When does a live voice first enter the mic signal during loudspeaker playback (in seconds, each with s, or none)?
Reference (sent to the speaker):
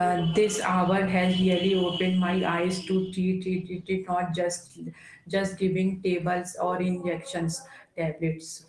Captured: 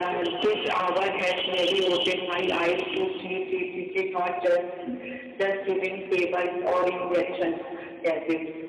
none